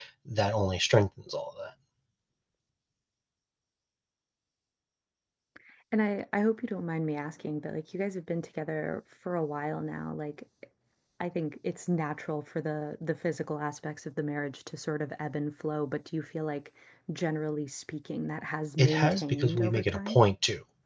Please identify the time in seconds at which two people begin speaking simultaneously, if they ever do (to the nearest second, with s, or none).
19 s